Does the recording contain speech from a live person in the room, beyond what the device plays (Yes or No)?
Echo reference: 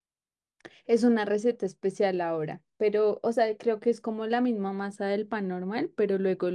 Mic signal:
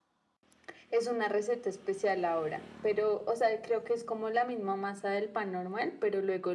No